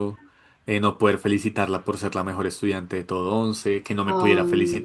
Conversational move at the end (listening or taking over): listening